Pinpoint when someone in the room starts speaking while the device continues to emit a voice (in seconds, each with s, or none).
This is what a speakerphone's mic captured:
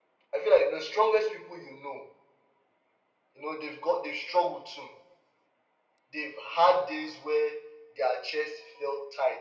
none